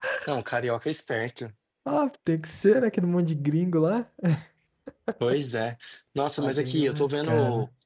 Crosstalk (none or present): present